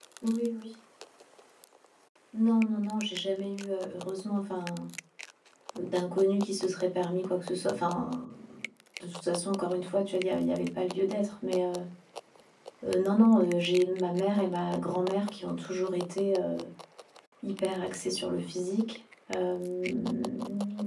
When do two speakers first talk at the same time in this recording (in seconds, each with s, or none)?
none